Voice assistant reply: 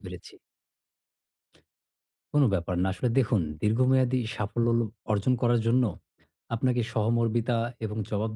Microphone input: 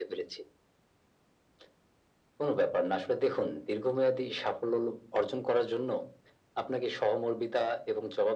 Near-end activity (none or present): none